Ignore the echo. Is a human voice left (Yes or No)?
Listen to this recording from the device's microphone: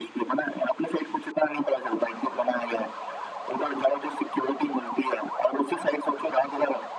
No